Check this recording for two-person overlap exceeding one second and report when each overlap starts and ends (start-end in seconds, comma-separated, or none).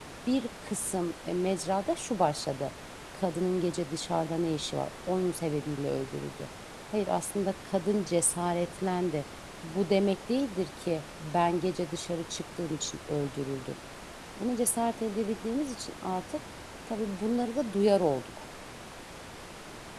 none